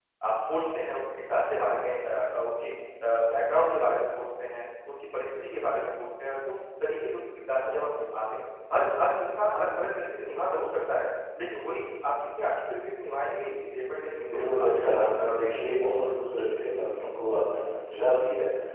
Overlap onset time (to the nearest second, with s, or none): 14 s